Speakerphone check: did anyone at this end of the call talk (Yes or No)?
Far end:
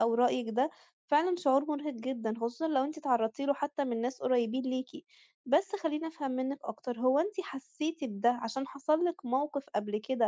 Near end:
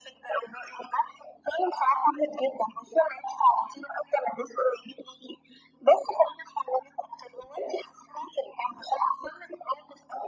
No